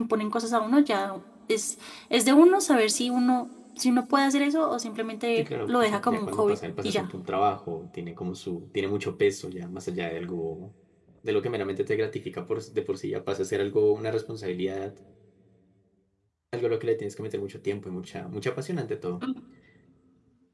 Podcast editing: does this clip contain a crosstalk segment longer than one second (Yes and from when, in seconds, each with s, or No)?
Yes, from 5.4 s